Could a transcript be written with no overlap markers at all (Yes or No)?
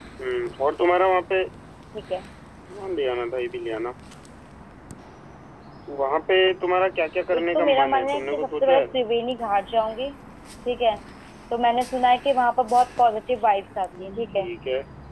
No